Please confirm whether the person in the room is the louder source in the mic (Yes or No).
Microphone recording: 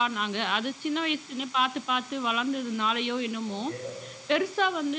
No